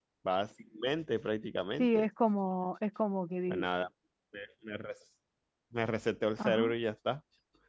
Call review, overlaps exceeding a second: none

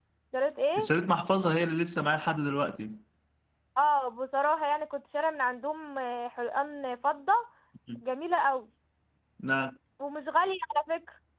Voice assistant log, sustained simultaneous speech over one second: none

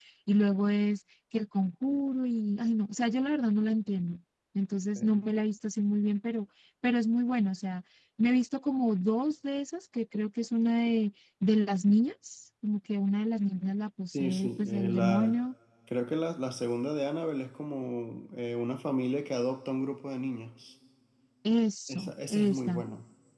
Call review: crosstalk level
present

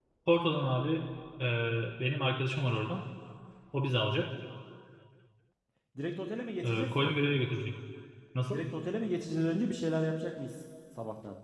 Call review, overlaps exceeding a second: none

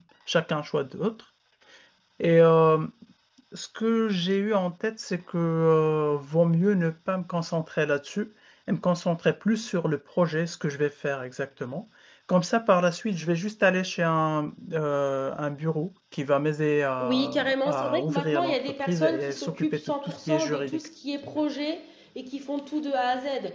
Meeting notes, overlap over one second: present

